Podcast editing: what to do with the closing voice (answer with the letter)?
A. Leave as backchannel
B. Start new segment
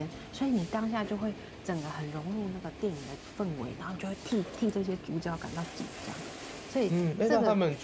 B